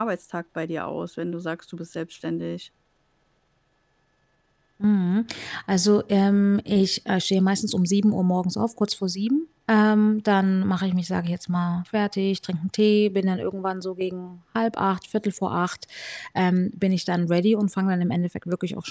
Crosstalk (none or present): none